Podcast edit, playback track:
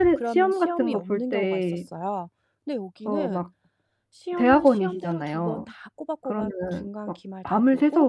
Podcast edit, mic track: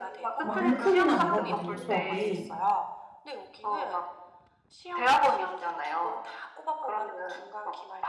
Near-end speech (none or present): present